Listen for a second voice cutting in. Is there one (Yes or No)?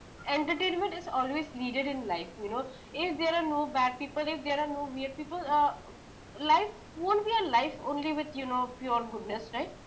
No